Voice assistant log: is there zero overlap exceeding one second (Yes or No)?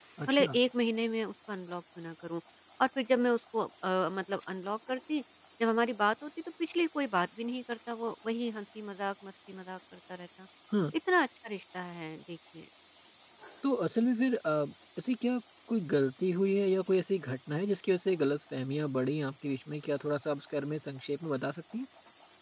Yes